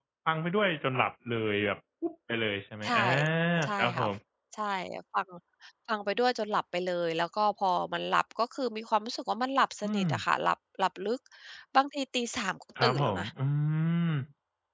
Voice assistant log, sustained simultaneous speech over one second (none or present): none